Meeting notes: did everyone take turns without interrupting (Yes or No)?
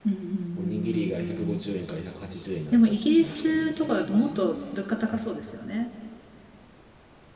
No